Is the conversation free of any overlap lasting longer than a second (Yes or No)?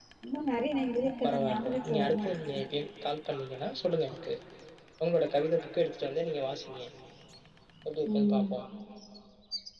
No